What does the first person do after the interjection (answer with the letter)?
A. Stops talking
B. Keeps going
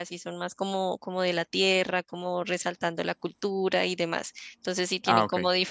B